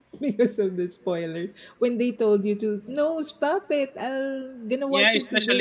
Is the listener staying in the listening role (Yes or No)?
No